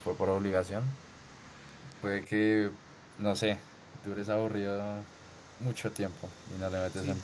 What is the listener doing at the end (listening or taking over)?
taking over